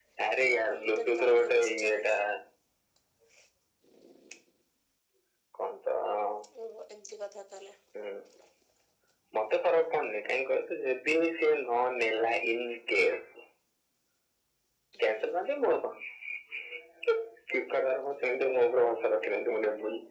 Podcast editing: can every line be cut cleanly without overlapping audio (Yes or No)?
No